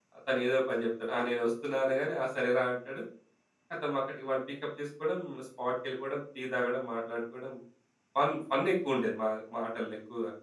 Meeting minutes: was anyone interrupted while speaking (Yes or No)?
No